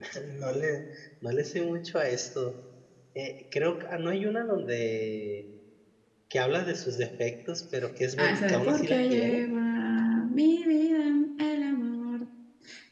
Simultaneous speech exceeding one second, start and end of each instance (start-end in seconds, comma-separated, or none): 8.2-9.4